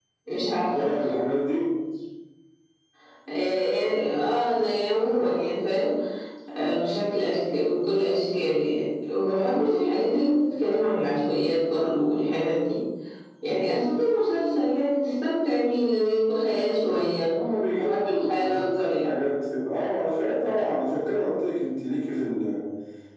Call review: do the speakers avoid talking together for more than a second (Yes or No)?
No